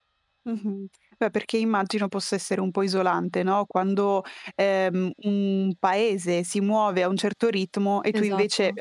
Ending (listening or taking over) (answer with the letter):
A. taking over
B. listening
B